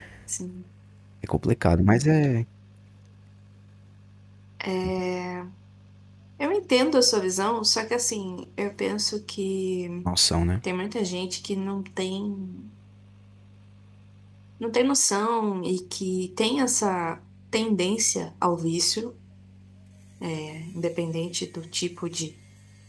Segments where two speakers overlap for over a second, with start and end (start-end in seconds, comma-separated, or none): none